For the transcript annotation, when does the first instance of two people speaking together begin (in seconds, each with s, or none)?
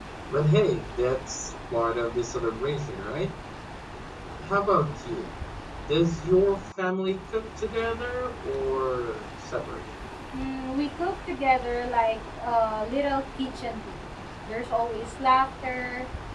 none